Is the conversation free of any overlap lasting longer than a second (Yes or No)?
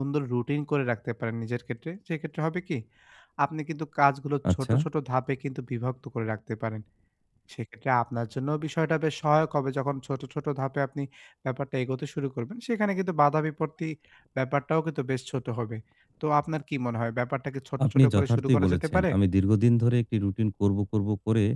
No